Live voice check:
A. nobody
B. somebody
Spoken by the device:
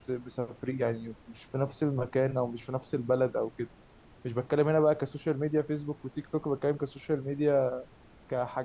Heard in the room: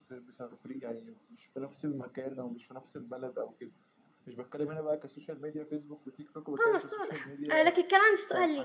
B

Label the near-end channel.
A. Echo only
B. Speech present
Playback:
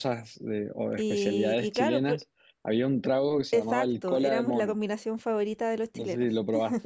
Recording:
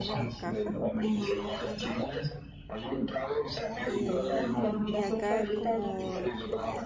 B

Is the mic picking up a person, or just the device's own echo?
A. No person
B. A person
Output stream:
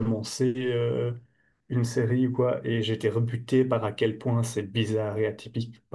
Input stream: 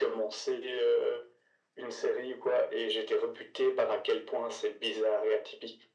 A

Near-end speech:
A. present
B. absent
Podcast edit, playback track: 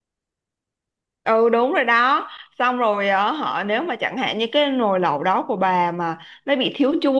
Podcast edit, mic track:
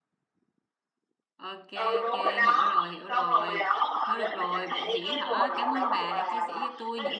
A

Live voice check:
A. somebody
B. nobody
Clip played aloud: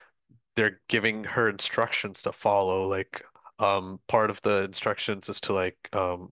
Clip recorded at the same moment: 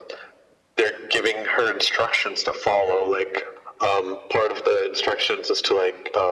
B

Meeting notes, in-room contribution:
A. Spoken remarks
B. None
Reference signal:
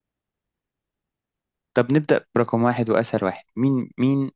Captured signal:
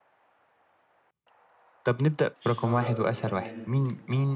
A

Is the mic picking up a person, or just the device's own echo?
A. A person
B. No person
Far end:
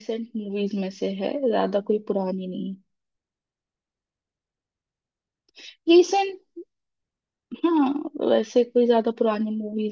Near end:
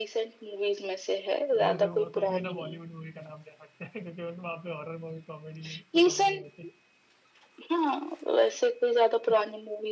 A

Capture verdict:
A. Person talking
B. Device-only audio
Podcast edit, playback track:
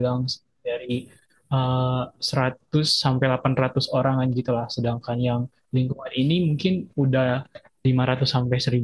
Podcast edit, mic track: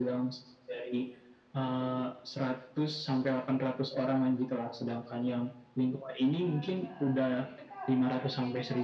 A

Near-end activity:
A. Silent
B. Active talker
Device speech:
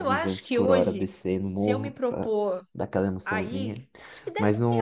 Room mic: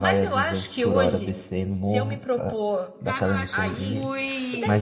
B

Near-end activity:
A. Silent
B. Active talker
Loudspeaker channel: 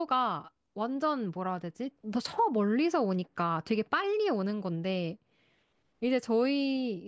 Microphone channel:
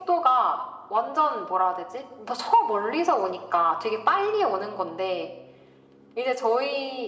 A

